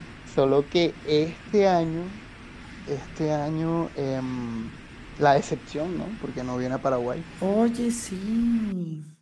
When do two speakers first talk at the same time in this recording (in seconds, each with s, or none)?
none